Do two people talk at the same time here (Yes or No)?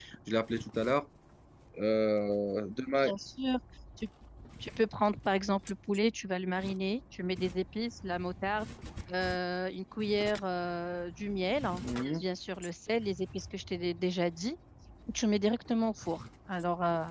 No